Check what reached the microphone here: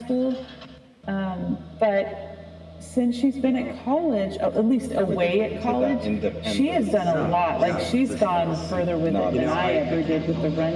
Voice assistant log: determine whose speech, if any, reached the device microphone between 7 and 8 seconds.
both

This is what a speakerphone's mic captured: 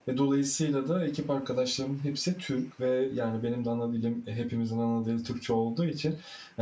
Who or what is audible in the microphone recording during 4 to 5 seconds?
user only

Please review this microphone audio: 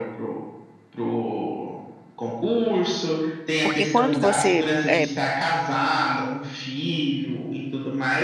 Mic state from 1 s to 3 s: echo only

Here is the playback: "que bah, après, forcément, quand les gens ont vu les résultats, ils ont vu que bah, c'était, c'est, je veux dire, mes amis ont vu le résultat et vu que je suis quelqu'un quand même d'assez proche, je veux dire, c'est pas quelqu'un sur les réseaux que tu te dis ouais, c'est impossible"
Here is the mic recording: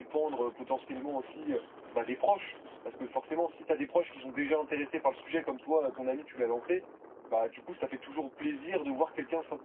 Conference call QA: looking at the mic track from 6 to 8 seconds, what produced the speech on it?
user only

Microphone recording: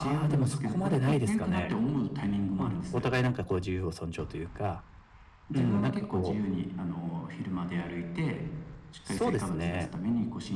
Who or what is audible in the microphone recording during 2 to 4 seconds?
both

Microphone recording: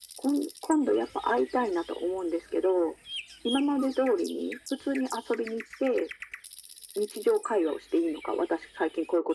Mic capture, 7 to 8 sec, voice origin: echo only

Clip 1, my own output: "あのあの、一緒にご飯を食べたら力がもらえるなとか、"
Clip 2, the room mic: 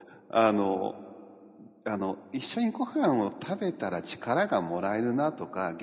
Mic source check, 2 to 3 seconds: echo only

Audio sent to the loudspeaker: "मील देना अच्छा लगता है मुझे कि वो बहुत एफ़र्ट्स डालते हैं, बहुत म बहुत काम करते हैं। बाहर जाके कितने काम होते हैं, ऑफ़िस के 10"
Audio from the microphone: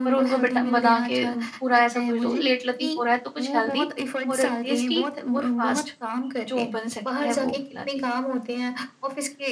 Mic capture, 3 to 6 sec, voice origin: both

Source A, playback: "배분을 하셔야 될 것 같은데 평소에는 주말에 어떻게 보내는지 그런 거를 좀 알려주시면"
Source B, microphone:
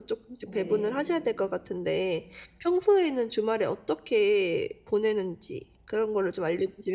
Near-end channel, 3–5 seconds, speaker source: echo only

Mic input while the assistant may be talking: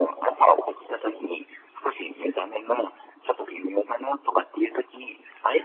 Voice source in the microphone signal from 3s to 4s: echo only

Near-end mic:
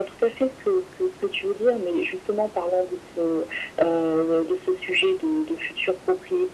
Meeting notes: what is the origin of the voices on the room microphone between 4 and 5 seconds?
echo only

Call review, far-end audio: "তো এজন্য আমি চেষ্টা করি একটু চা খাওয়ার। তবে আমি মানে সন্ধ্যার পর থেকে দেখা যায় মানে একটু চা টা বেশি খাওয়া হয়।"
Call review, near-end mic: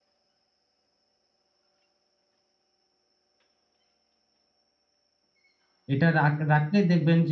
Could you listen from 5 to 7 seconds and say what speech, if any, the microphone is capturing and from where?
user only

